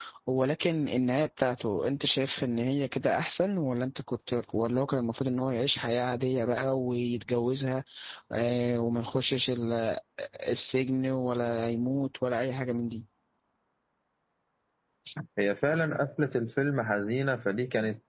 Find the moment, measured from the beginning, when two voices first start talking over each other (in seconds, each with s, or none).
none